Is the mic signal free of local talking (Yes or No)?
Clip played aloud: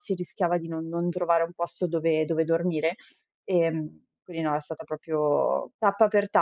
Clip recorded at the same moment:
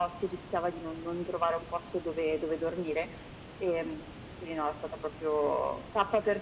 Yes